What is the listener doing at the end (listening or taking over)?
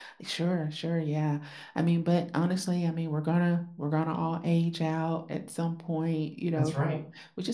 listening